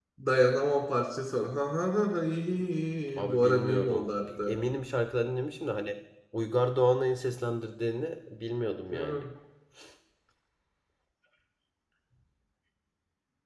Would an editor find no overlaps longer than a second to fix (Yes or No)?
No